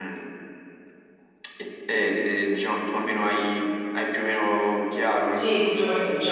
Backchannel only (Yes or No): No